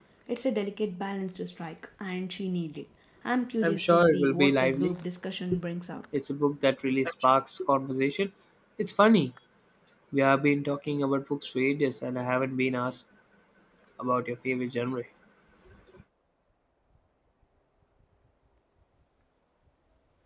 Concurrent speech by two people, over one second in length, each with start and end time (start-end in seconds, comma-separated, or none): 3.6-4.9